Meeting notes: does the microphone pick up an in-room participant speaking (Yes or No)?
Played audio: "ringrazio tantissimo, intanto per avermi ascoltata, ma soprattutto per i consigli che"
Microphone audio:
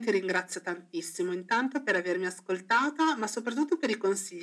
No